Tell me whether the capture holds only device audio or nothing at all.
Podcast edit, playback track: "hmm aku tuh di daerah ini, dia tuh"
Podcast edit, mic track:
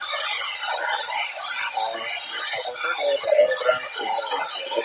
Yes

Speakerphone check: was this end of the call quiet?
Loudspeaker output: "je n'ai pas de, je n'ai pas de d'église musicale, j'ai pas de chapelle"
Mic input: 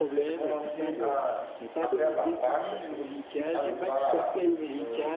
No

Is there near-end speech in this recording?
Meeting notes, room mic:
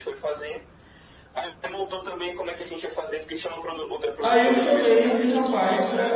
Yes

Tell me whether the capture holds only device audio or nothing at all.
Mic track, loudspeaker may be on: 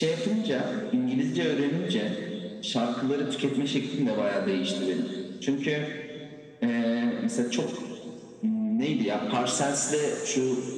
Yes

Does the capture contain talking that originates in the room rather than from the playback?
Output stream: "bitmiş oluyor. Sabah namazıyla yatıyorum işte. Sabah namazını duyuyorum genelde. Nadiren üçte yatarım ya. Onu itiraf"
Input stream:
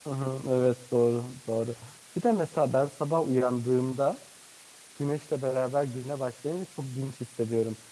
Yes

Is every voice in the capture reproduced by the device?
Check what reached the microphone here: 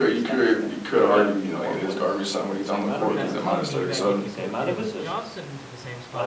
No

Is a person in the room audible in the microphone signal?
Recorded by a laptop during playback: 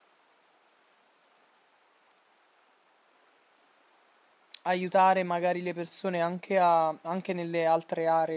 Yes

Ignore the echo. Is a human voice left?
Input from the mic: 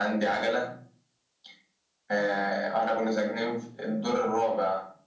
No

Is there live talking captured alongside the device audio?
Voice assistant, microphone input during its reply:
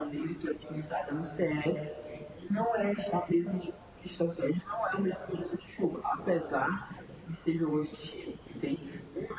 No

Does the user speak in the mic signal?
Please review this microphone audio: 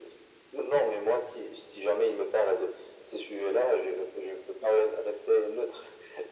No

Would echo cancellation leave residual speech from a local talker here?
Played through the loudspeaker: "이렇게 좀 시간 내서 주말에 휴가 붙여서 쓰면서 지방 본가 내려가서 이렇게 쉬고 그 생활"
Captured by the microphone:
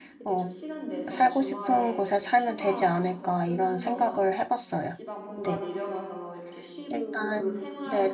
Yes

